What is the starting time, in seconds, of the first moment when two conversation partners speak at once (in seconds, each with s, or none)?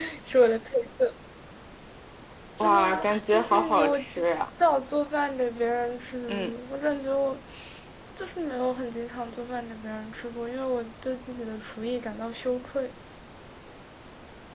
2.6 s